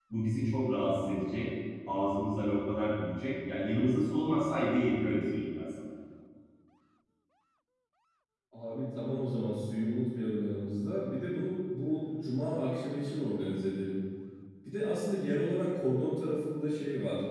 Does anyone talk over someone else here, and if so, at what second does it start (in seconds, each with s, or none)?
none